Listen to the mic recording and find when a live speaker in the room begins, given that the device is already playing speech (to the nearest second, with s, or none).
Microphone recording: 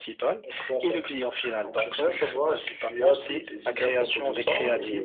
0 s